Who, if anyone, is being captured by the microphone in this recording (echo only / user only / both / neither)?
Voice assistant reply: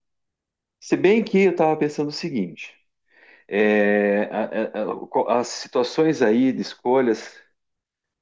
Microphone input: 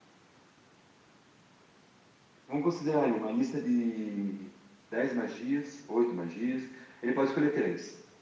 user only